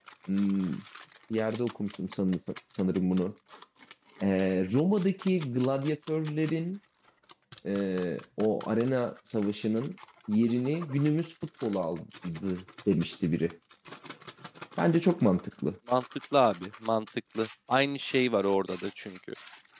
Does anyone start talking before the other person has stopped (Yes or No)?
No